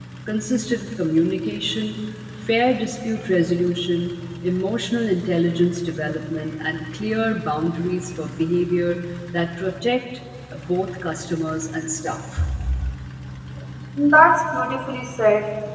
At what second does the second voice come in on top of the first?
none

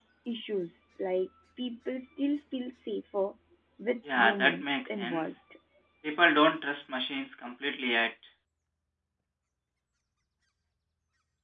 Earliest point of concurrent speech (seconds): 4.2 s

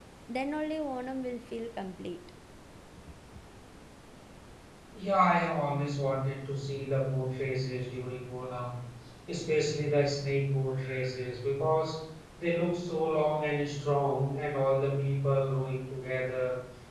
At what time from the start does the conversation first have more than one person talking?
none

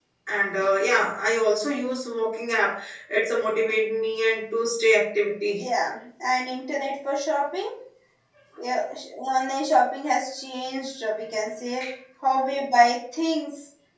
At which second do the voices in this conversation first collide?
none

